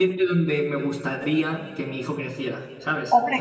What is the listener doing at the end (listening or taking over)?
taking over